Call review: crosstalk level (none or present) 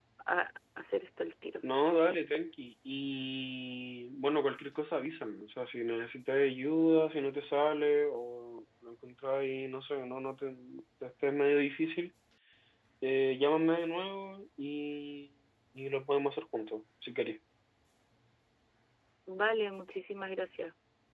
none